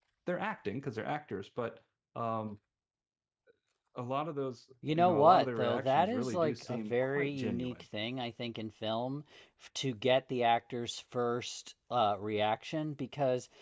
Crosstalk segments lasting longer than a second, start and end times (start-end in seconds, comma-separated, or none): 5.0-7.7